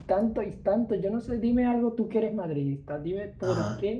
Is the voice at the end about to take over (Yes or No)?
No